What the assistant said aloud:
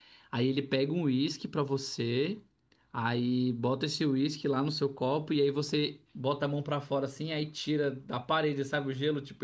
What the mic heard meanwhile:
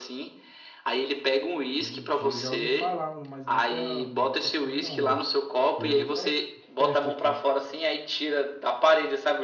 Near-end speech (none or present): present